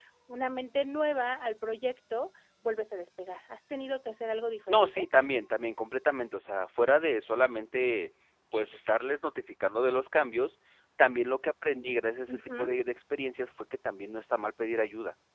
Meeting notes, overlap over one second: none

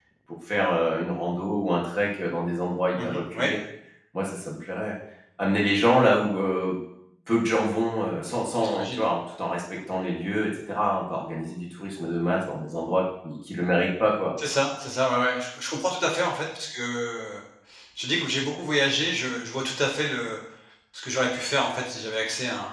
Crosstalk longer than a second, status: none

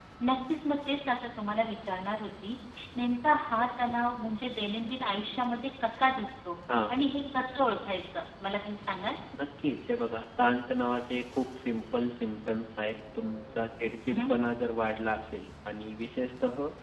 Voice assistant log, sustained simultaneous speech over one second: none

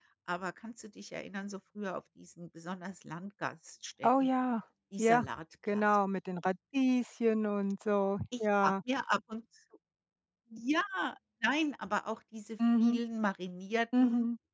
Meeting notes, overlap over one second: none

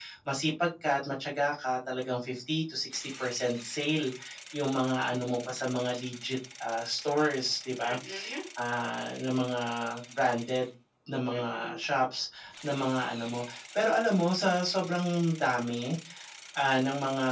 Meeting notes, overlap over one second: none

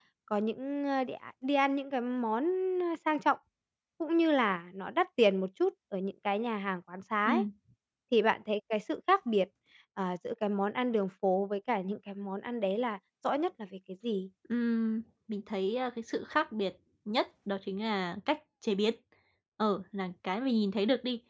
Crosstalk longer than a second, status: none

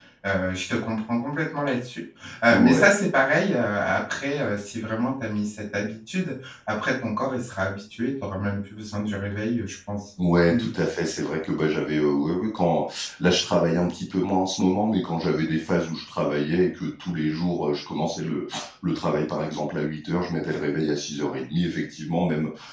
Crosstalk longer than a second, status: none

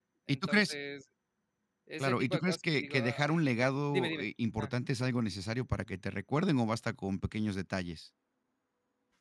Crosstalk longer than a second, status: present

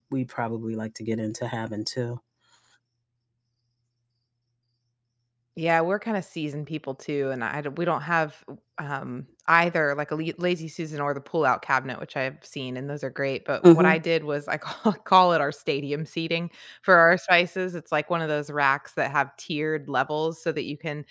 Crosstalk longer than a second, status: none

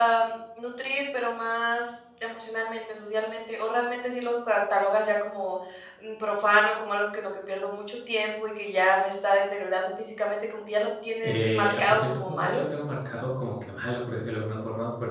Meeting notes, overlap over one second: present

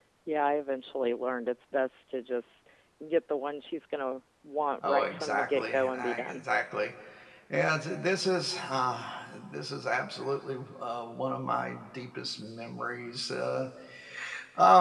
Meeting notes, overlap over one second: present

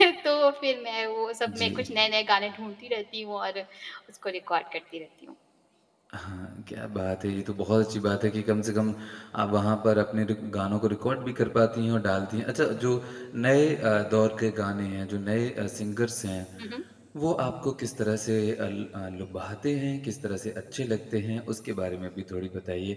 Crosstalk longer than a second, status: none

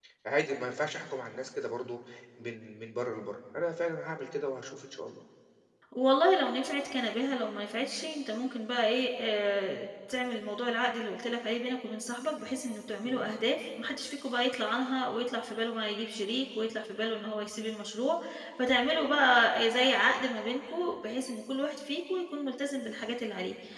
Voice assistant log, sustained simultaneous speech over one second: none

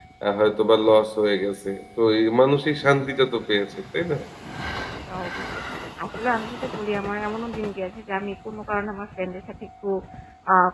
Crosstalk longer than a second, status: none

